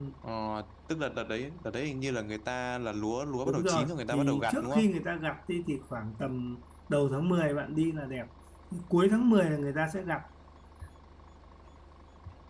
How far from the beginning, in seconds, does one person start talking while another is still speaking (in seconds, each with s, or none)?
3.5 s